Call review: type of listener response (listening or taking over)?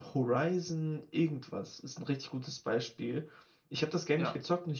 listening